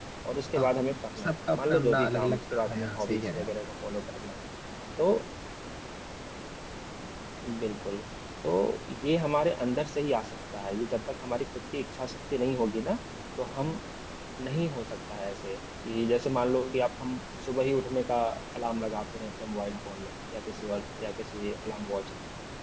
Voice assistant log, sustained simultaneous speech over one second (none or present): present